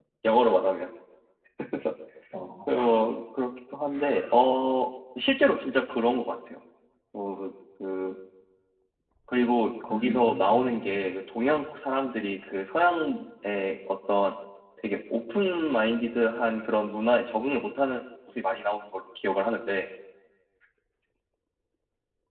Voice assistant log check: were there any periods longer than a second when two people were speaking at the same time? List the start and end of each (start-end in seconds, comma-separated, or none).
9.9-11.1